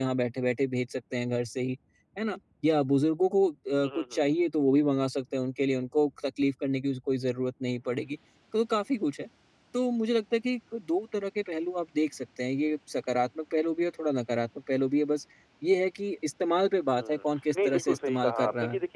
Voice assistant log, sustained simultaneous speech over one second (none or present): present